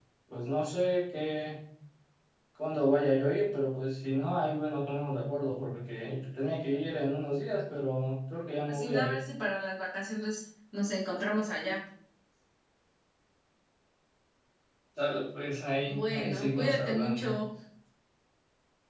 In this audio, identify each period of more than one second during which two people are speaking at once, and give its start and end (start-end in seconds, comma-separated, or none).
15.9-17.3